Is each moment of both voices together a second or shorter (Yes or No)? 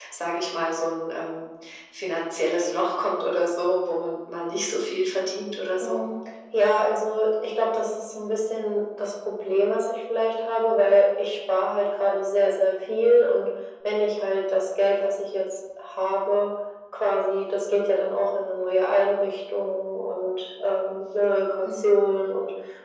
Yes